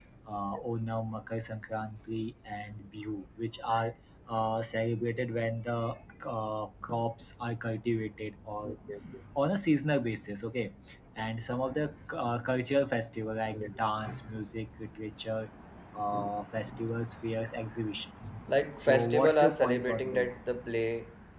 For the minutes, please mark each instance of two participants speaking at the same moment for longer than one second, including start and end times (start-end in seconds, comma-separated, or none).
18.8-20.4